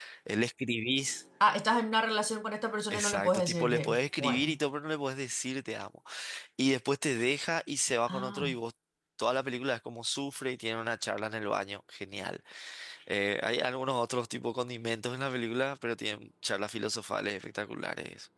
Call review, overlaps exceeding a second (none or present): present